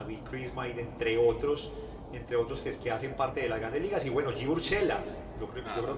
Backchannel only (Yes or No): Yes